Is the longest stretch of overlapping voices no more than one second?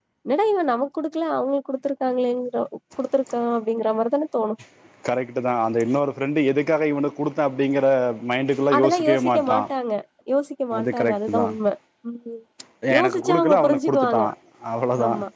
No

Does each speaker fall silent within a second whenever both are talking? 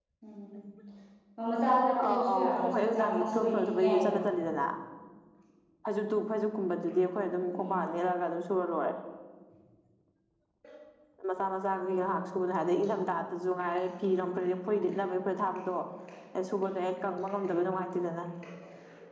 No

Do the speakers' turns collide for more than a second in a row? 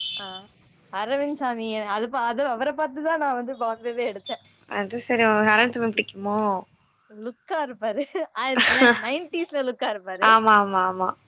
No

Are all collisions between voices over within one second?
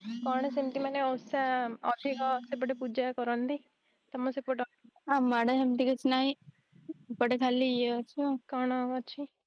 Yes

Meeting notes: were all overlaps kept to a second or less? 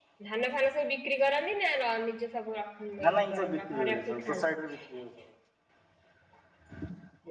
No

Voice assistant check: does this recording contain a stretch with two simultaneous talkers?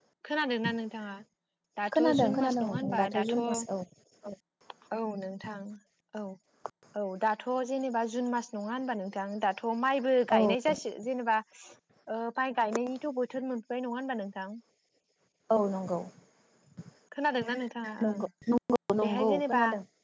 Yes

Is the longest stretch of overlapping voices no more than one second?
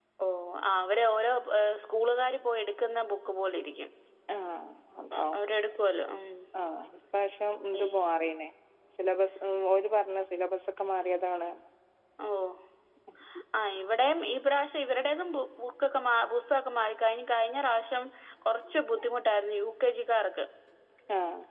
Yes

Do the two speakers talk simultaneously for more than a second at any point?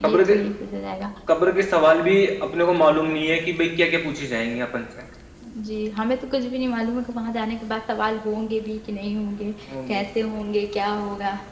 No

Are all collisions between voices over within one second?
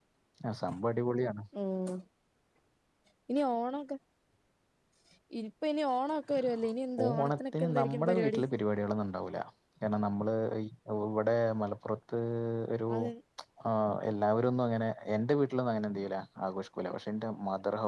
No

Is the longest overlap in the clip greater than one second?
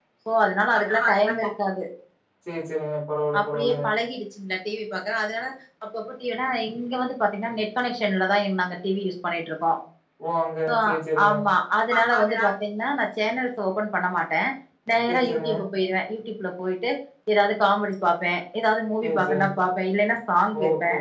No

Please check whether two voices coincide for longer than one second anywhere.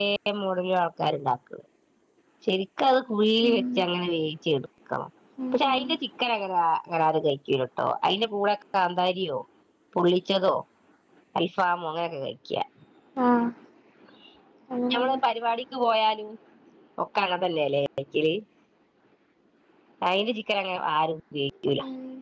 No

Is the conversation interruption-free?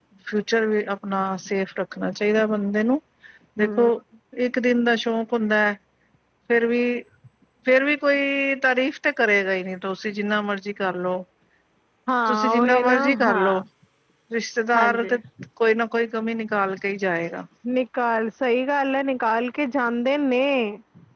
No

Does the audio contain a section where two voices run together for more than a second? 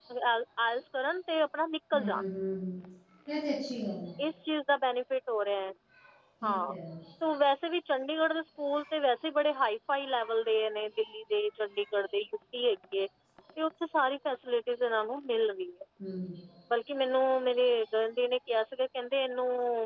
No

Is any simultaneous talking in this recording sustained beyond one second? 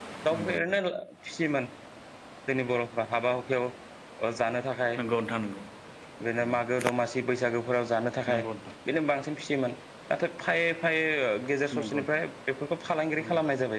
No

